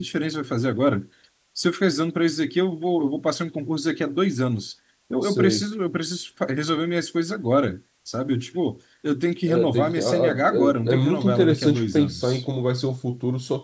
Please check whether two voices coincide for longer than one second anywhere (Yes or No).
Yes